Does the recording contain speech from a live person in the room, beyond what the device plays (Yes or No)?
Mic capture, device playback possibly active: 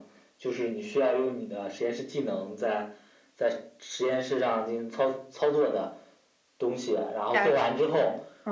Yes